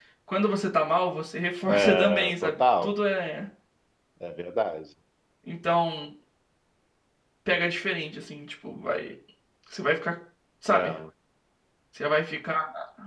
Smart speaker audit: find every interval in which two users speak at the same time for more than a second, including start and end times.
1.6-2.9

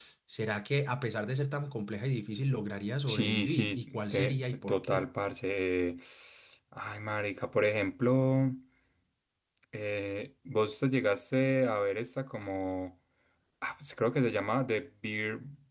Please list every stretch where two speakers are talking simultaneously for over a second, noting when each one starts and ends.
3.1-5.1

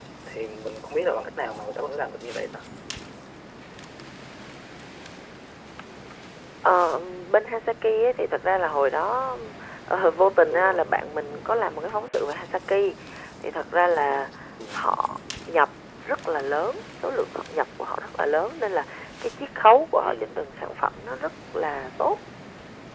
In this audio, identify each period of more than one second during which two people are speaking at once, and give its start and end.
none

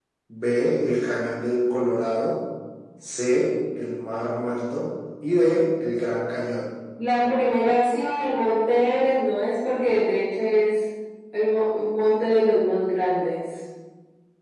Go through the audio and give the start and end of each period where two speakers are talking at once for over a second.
none

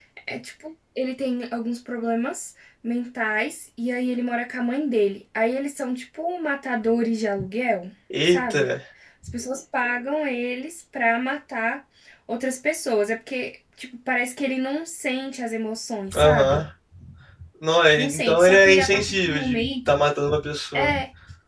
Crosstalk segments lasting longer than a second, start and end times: 18.0-19.9

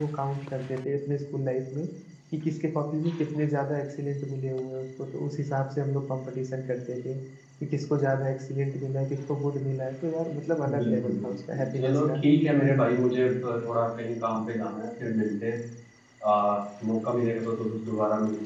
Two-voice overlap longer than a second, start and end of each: 10.8-12.2

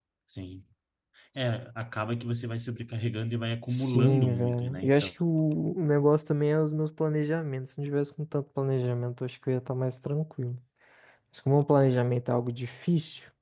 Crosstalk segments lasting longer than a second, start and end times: 3.7-5.1

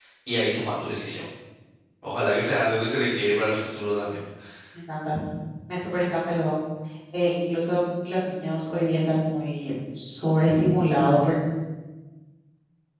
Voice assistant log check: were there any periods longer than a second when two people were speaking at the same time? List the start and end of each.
none

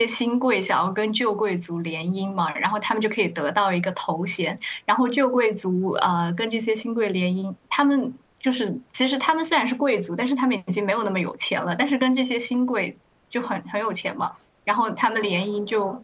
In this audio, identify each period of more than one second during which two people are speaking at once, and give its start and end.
none

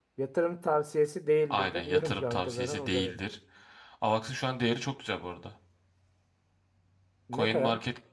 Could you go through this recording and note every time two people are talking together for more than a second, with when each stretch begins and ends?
1.5-3.1

